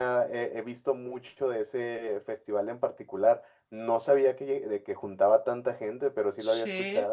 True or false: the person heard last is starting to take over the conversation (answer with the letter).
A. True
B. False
A